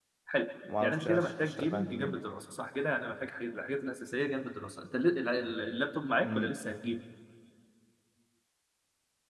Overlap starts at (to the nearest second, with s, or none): 1 s